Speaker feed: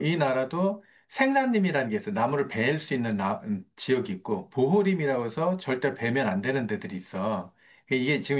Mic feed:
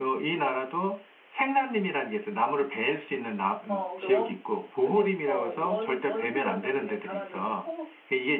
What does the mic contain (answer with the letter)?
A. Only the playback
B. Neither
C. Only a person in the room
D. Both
D